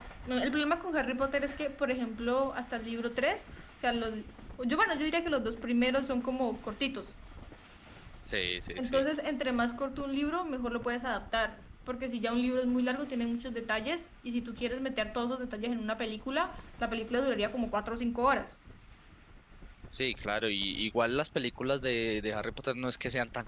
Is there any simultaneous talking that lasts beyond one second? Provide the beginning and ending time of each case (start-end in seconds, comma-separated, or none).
none